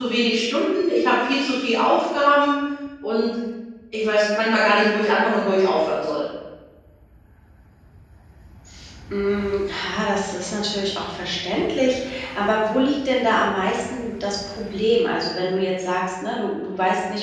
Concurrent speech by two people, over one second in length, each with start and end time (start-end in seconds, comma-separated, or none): none